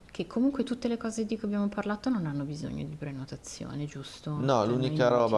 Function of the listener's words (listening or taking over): taking over